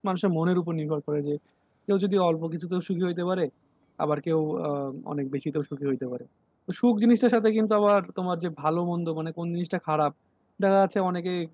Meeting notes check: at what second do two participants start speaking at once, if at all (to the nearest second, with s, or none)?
none